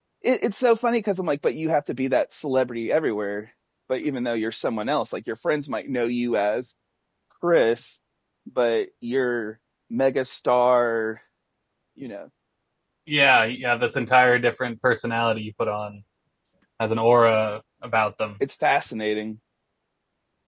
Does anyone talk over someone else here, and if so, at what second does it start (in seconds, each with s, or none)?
none